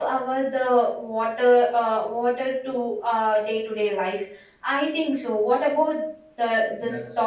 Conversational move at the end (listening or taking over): taking over